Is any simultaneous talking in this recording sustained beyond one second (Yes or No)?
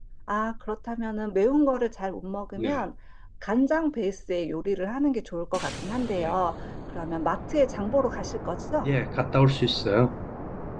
No